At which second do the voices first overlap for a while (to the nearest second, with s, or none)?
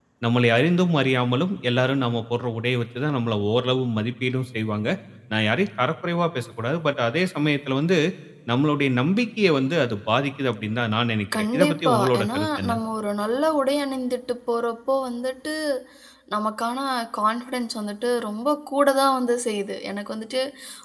11 s